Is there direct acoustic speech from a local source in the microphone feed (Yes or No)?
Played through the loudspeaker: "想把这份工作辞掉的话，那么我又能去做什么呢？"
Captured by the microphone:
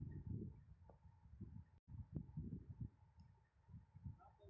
No